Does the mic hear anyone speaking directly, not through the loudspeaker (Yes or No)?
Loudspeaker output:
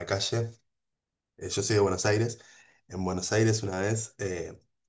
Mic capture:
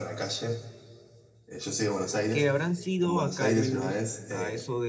Yes